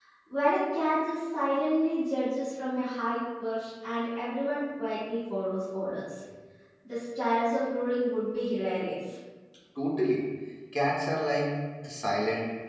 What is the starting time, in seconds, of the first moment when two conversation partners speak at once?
none

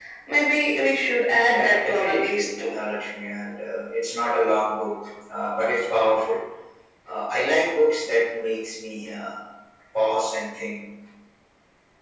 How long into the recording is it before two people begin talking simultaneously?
1.5 s

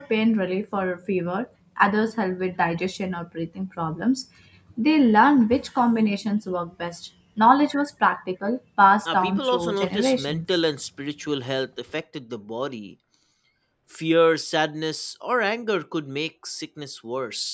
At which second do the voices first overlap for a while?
9.1 s

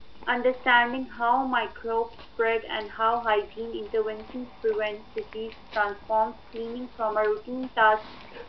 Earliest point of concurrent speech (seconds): none

